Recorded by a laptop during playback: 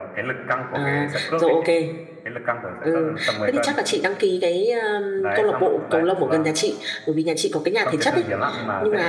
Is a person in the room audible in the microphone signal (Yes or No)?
Yes